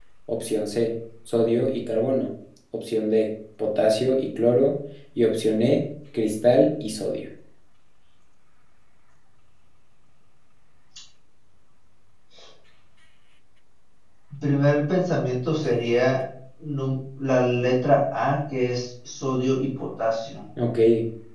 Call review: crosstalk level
none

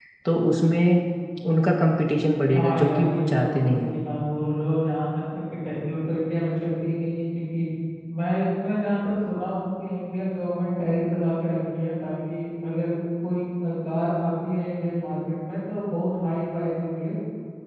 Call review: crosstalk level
present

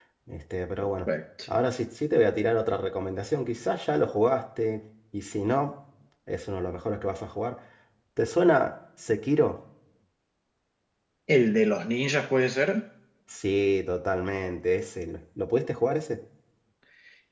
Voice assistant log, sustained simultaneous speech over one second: none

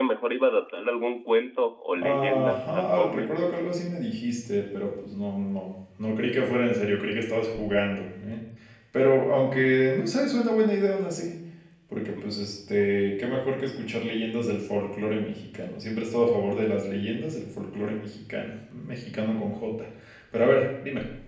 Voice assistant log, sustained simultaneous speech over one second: present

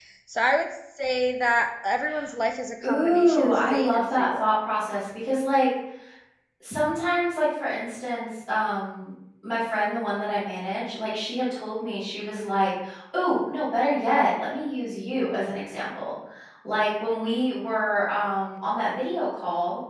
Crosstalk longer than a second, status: present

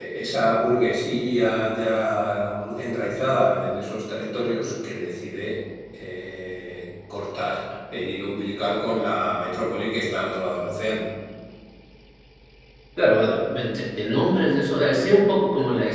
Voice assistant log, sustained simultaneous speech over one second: none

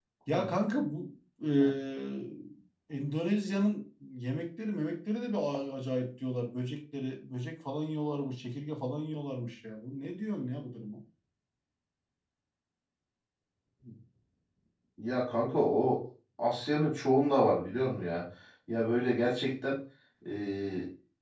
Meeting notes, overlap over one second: none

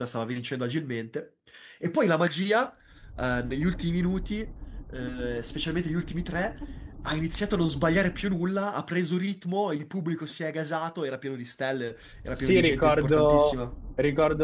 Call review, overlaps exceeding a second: present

